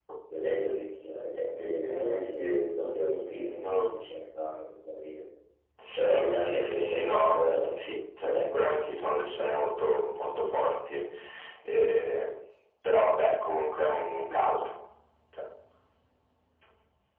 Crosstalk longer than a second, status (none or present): present